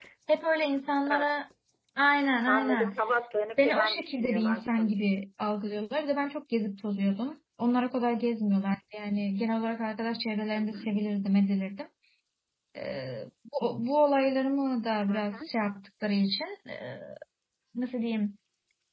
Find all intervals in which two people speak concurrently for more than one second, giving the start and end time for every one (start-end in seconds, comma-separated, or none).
3.6-4.9